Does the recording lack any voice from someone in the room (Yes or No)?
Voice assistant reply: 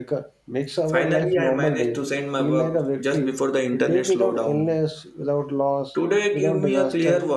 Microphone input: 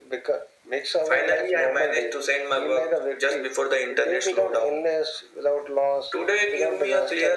Yes